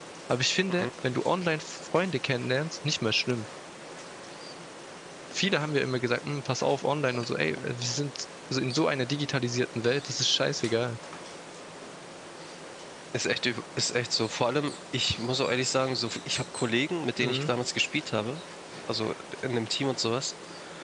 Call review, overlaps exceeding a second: none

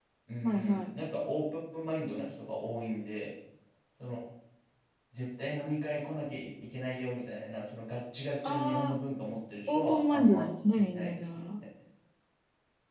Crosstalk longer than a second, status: present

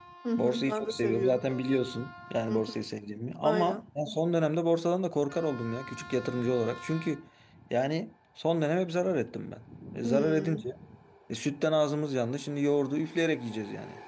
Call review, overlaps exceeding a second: present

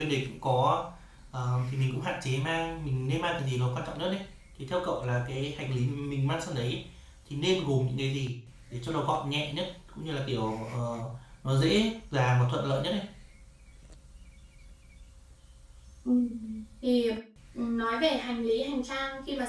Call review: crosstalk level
none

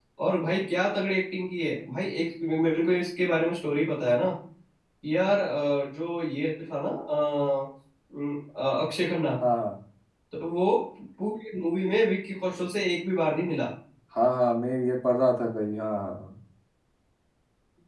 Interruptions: none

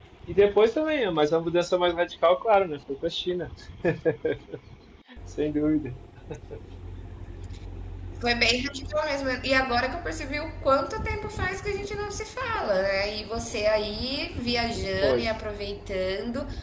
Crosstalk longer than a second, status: none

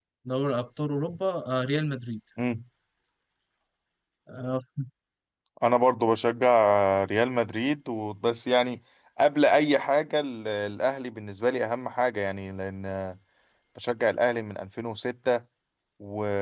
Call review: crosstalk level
none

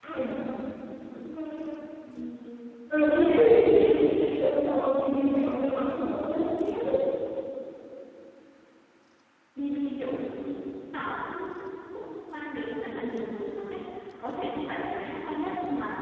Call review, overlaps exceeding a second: present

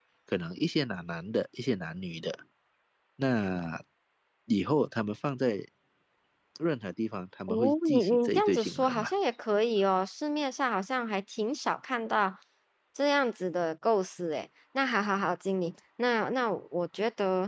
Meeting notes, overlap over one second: present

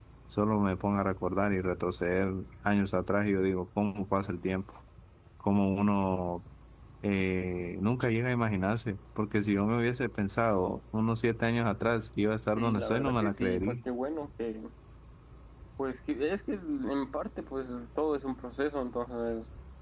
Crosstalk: present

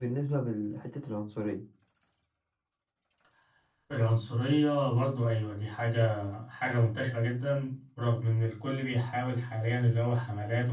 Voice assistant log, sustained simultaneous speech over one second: none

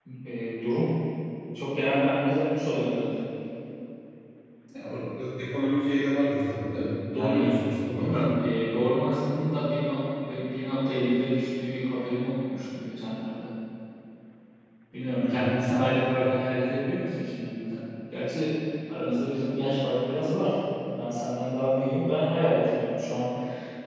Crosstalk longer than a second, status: none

